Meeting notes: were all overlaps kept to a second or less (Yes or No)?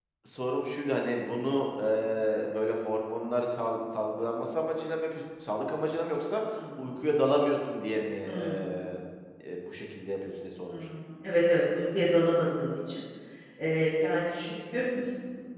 Yes